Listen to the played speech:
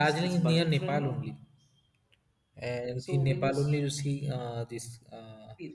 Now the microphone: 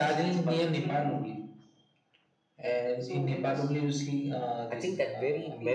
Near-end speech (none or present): present